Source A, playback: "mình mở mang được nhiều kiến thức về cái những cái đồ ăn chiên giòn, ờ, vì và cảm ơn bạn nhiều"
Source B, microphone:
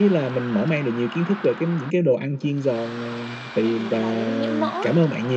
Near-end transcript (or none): bị máu nhiễm mỡ ấy,